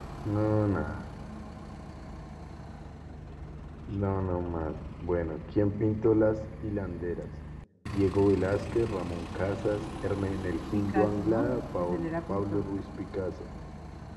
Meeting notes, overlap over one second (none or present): present